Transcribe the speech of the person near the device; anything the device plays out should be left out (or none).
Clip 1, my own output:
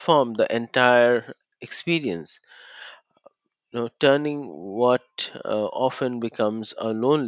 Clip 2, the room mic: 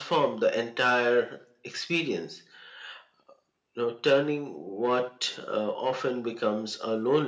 none